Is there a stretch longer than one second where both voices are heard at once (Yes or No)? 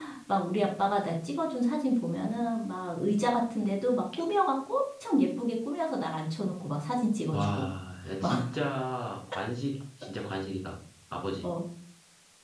No